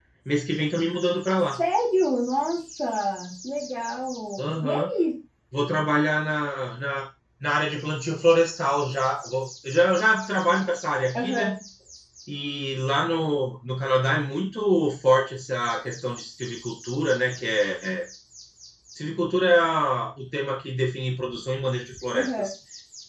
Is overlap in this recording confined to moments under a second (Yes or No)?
Yes